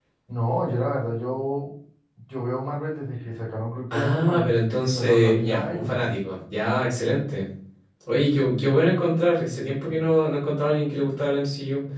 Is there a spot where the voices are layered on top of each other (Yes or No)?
Yes